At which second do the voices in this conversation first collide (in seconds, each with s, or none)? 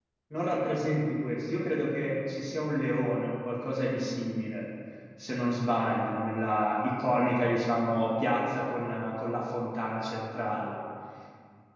none